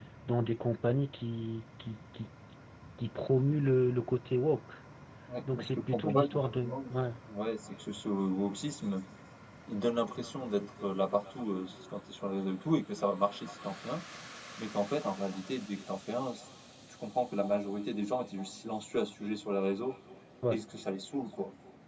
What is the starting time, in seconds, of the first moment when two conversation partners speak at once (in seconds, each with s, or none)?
5.4 s